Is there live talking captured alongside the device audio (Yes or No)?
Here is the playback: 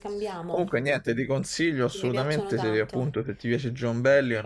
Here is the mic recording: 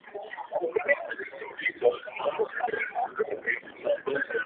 No